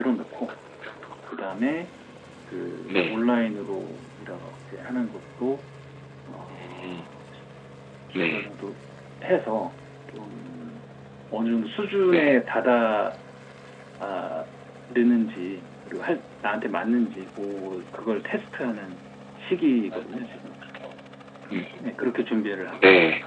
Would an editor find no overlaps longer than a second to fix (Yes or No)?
Yes